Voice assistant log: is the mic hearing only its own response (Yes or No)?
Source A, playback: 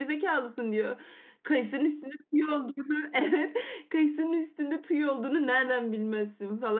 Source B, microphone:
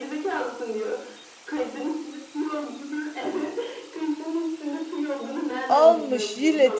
No